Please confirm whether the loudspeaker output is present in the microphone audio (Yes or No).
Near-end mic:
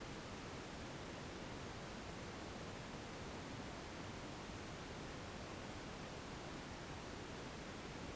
No